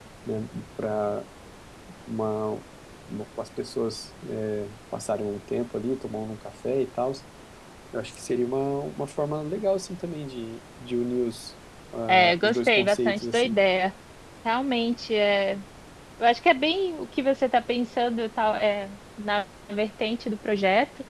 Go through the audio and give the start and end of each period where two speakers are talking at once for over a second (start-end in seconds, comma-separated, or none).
12.1-13.6